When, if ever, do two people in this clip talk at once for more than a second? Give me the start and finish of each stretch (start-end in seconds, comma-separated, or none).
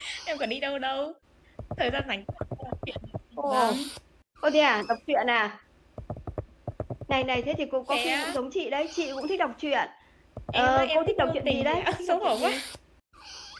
10.5-12.5